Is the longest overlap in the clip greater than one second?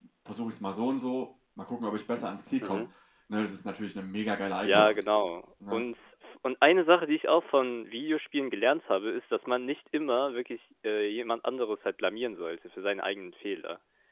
No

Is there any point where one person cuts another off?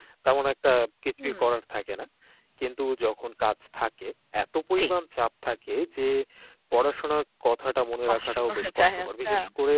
Yes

